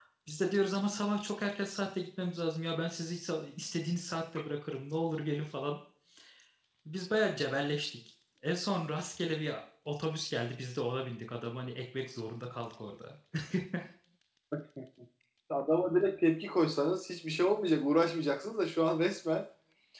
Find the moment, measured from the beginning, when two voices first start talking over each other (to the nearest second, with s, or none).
none